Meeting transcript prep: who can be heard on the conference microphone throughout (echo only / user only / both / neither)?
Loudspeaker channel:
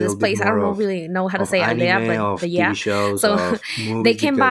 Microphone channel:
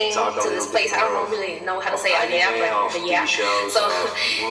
echo only